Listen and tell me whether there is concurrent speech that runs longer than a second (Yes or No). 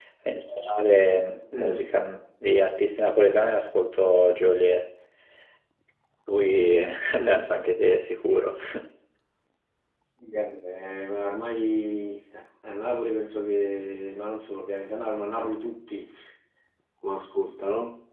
No